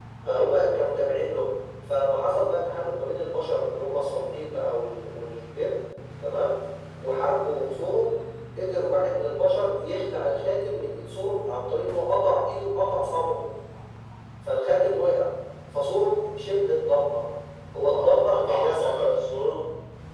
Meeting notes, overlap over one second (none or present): present